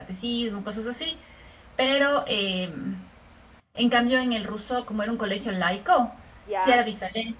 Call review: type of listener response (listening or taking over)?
listening